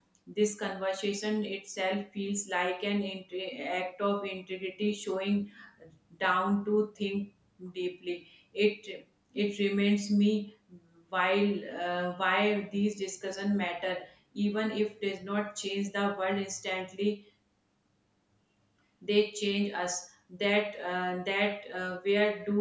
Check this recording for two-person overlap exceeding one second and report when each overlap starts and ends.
none

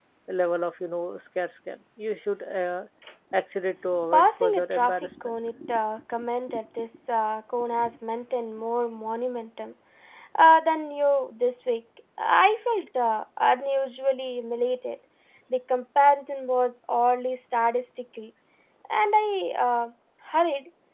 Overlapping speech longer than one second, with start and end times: 4.1-5.4

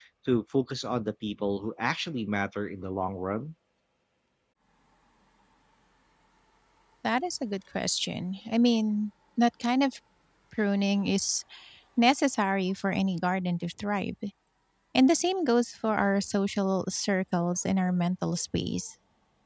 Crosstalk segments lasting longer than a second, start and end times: none

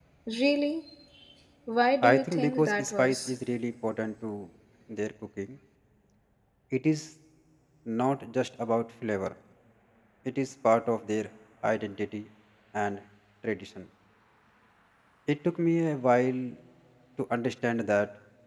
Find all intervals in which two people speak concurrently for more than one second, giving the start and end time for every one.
2.0-3.3

